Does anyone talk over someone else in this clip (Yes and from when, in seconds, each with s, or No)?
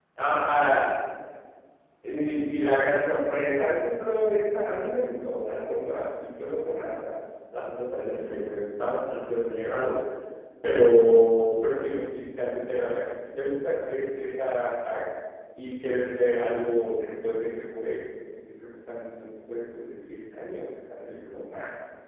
No